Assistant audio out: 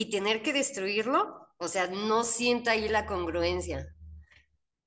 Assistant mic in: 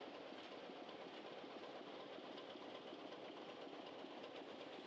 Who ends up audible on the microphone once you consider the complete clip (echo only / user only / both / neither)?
neither